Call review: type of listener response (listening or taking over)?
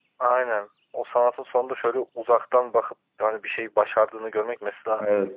listening